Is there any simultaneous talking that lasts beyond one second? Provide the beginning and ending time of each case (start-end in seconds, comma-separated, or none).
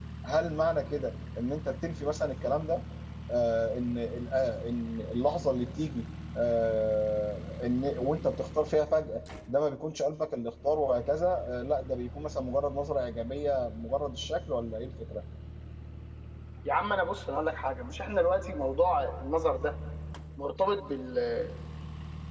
none